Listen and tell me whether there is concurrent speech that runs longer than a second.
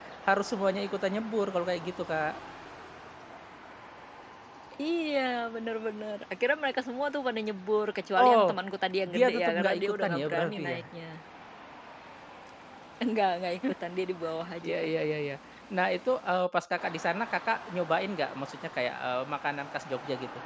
Yes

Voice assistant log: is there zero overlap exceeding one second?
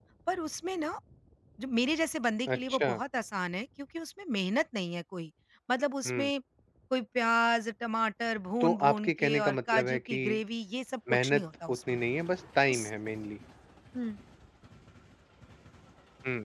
No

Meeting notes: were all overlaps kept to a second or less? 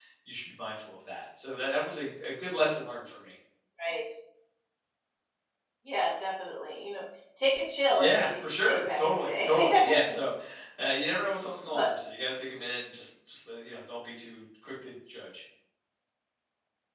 No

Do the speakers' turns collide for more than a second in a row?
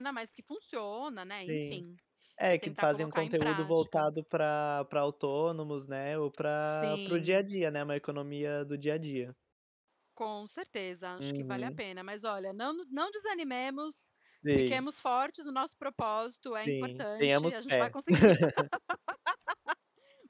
Yes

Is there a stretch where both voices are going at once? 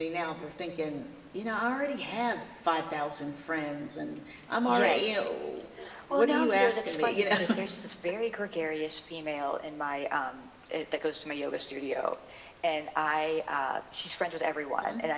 Yes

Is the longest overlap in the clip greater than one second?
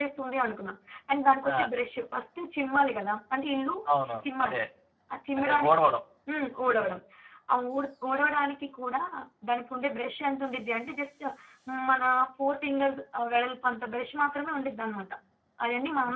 No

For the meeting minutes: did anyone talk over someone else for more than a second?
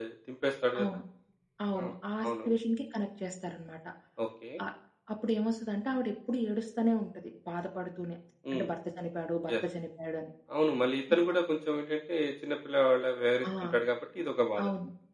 No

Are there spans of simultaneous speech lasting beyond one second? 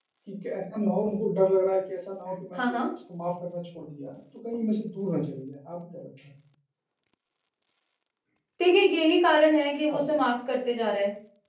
No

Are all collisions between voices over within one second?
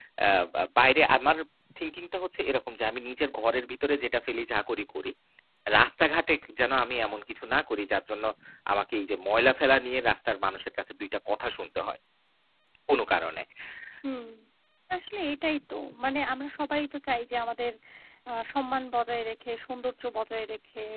Yes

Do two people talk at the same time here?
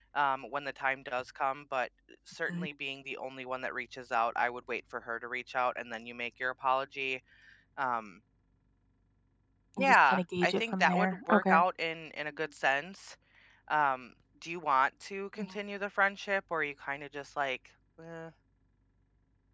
Yes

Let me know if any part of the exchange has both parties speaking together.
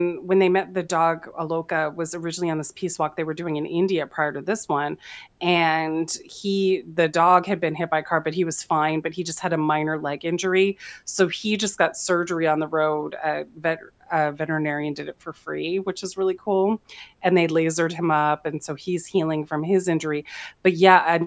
No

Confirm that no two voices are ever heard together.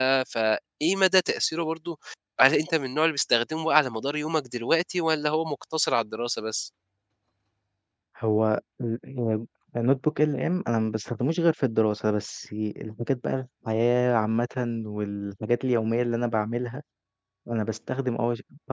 Yes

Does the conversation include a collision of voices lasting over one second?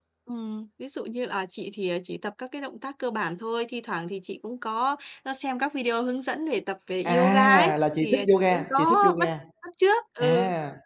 Yes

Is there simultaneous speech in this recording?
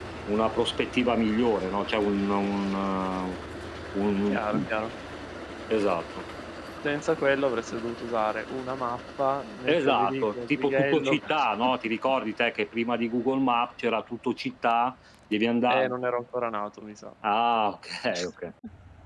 Yes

